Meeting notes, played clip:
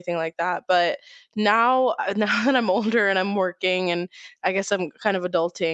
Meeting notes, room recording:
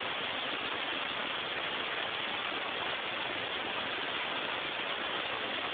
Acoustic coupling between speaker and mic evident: No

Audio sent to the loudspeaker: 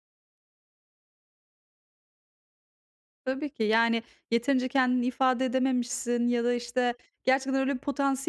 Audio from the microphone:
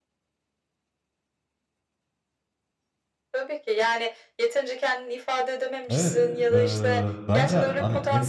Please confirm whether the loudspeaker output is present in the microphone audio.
Yes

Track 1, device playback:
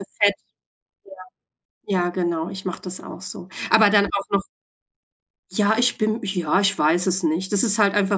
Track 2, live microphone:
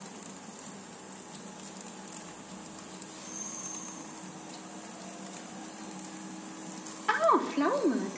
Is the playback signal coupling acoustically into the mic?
No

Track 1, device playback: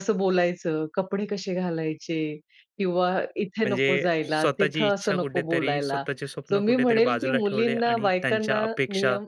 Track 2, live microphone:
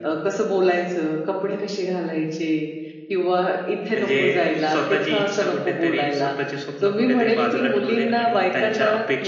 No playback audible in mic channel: No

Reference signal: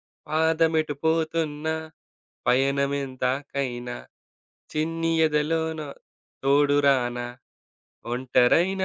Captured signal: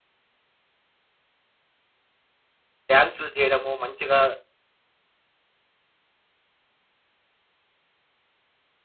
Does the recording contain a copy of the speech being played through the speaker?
No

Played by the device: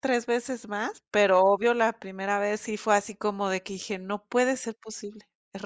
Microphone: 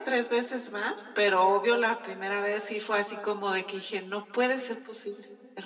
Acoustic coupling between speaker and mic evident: Yes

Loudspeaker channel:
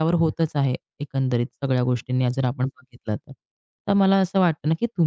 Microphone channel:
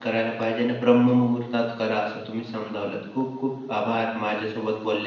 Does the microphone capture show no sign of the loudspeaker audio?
Yes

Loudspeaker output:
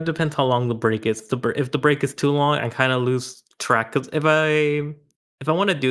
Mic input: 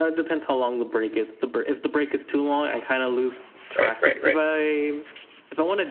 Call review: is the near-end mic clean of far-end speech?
No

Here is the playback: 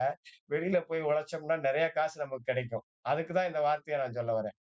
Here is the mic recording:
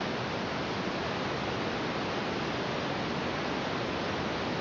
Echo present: No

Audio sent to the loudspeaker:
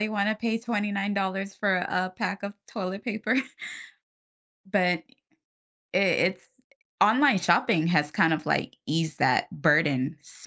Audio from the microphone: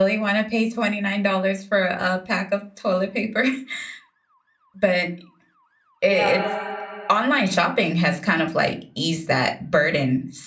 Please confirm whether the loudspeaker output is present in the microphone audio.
Yes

